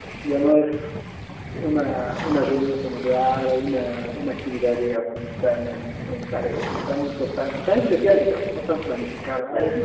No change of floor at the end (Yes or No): Yes